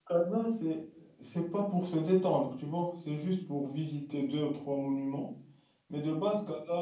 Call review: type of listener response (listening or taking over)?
listening